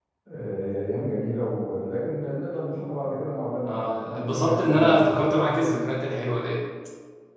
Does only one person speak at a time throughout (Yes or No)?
No